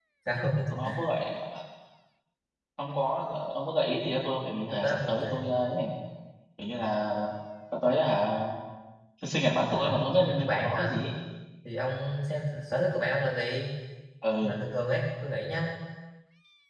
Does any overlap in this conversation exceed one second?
Yes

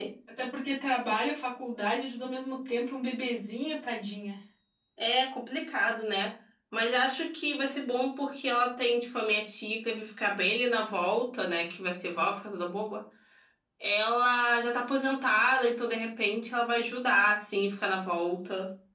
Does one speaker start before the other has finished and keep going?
No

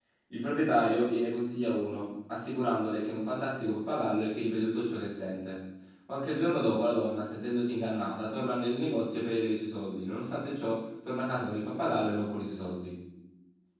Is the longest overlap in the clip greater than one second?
No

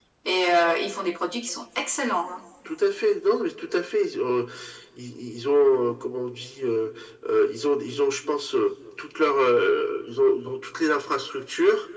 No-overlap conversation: Yes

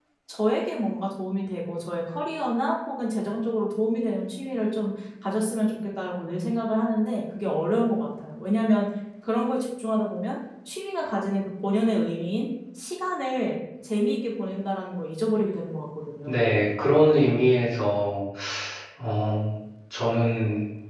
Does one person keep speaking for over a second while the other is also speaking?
No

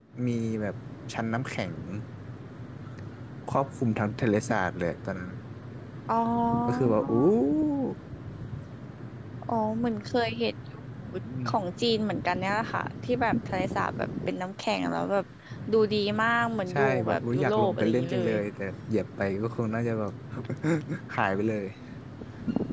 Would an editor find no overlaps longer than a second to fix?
No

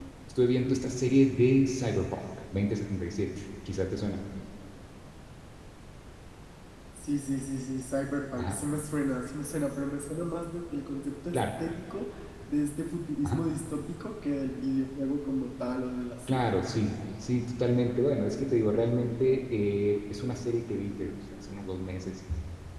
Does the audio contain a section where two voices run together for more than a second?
No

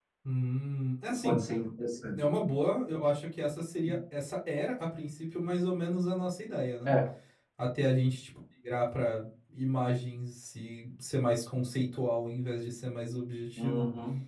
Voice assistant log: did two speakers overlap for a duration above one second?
No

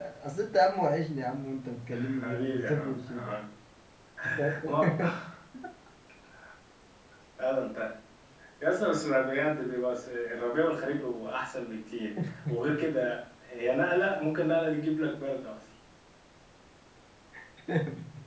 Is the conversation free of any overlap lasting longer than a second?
No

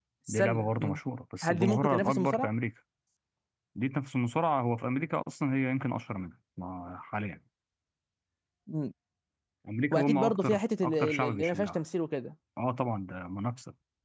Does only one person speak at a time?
No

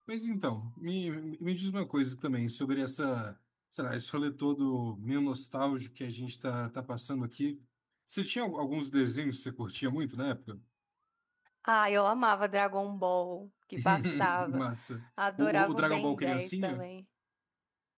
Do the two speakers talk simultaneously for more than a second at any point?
Yes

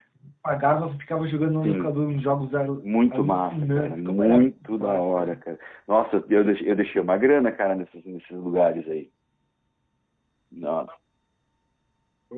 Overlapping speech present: Yes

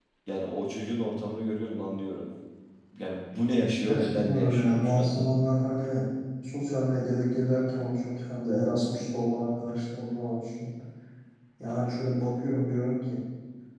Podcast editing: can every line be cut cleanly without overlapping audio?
No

